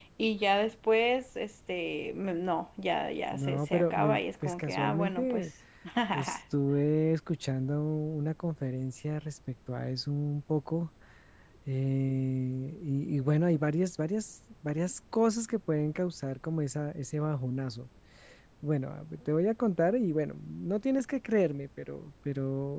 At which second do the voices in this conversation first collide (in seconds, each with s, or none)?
3.3 s